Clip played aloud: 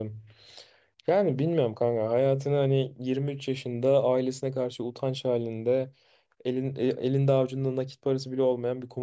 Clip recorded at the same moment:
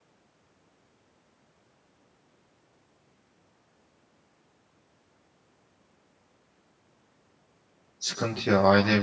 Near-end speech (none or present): present